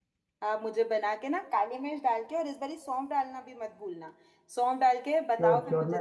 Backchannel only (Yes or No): No